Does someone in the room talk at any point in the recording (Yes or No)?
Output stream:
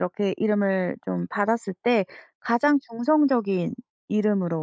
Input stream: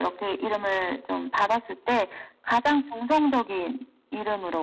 No